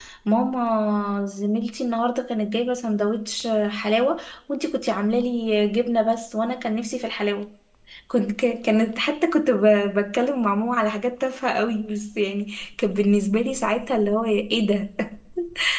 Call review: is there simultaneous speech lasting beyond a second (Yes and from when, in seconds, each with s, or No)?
No